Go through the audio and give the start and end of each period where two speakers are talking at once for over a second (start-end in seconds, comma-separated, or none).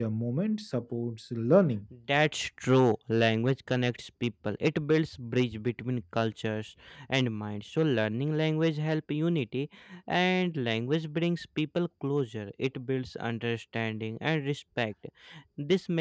none